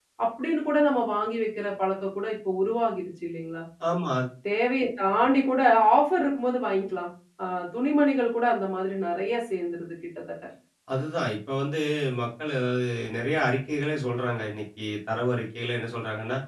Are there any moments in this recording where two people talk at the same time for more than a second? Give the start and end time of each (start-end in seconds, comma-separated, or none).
none